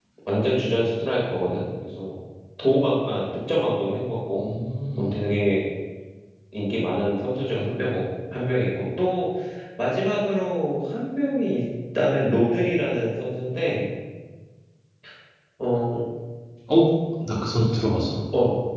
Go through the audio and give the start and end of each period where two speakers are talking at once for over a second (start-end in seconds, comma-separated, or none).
none